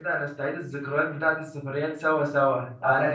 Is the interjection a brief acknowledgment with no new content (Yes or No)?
Yes